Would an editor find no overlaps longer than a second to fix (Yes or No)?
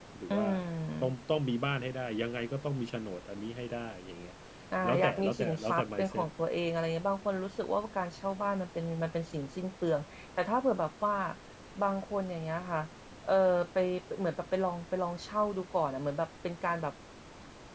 No